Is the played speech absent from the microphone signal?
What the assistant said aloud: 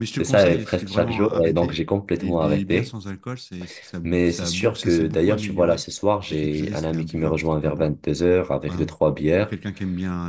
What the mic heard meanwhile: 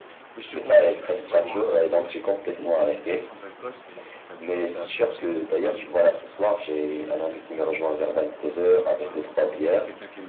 No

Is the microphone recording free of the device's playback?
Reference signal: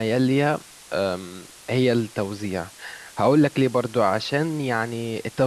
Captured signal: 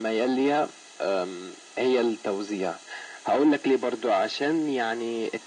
No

